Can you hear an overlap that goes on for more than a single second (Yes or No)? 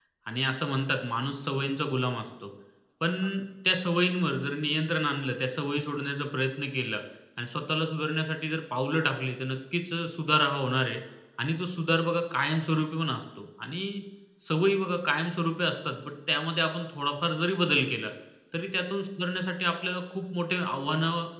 No